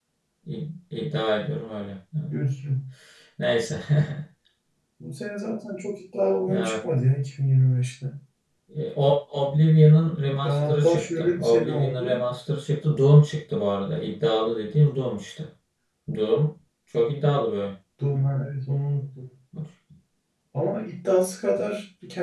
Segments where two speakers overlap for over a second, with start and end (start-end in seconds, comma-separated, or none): 10.4-12.1